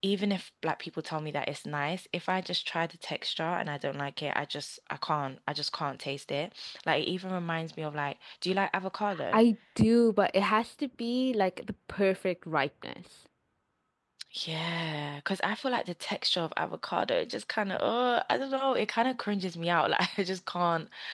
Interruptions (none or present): none